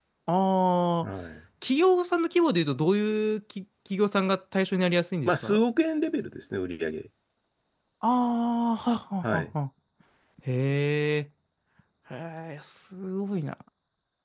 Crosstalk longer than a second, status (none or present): none